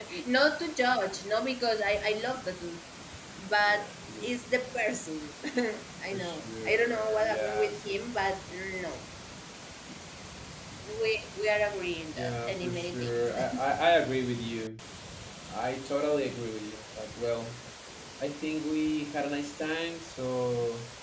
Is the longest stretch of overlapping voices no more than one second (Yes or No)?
No